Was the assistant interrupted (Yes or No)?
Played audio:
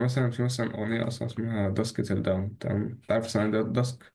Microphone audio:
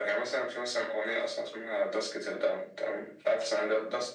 No